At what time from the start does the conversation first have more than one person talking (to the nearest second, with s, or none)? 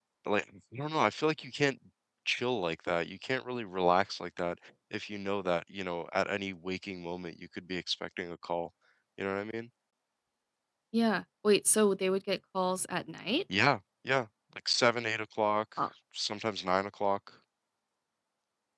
none